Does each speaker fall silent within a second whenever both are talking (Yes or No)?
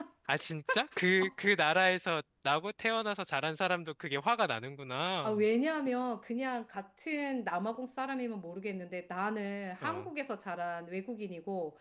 Yes